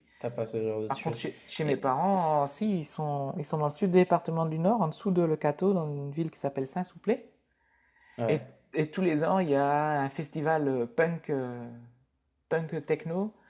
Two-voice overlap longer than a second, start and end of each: none

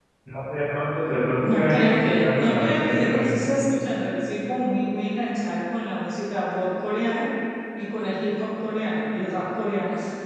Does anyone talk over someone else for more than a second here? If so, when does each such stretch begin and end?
1.4-3.5

